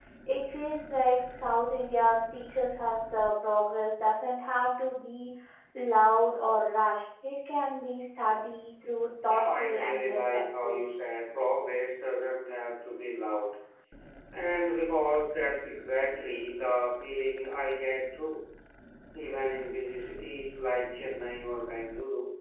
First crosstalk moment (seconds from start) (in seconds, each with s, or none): 9.3 s